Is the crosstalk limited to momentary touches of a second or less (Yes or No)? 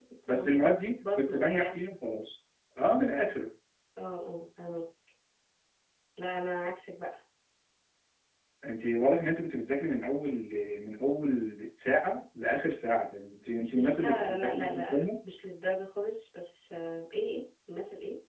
No